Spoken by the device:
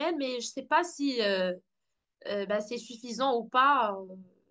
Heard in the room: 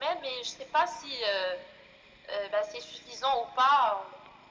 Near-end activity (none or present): none